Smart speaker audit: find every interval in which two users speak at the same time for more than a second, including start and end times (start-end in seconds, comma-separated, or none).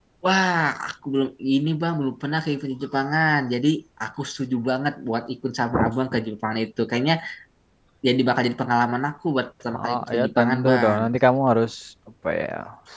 9.7-11.0